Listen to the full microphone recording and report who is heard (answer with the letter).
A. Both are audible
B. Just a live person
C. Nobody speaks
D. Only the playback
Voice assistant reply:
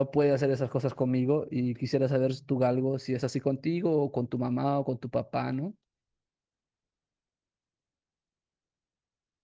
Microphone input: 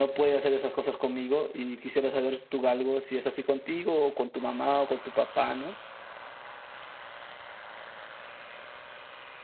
D